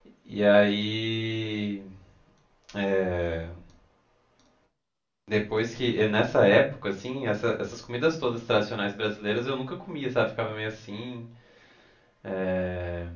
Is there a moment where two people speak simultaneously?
No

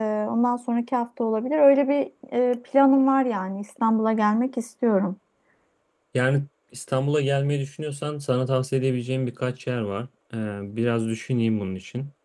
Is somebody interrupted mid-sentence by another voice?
No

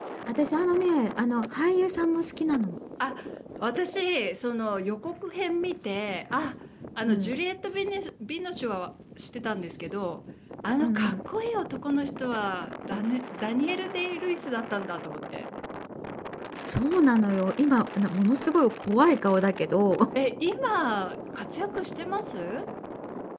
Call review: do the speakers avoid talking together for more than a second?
Yes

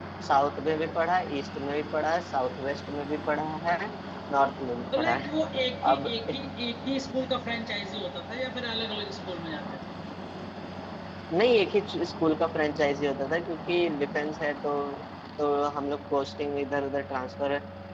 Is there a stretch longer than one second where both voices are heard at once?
No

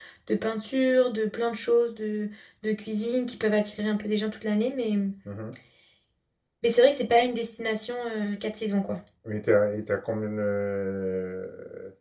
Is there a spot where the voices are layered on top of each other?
No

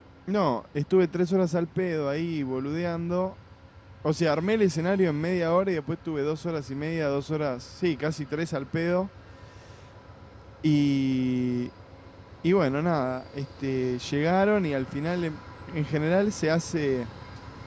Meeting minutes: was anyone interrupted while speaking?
No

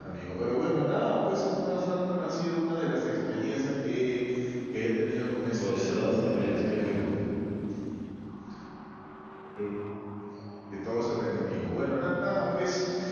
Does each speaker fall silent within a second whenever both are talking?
No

